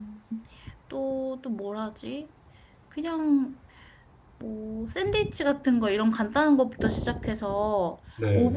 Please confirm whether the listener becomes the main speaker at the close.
No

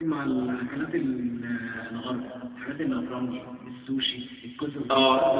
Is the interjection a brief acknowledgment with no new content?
No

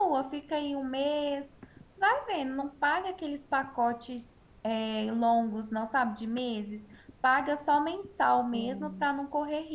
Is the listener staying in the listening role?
Yes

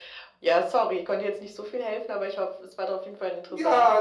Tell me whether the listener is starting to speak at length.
Yes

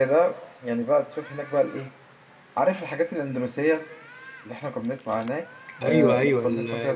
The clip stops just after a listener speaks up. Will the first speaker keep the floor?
No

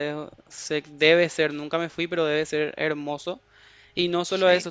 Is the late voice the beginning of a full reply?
No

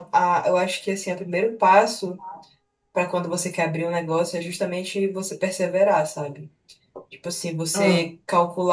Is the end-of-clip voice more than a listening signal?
No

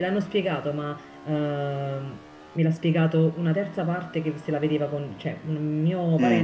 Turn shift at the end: No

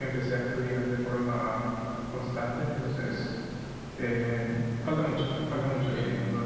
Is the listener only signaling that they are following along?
No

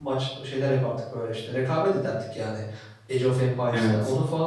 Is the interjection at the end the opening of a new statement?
No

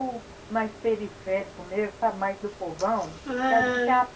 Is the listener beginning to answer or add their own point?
No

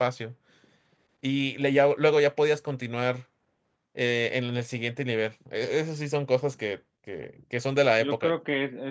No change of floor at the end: No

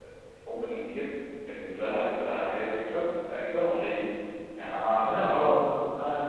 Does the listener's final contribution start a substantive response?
Yes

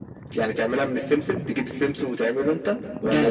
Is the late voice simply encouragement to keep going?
No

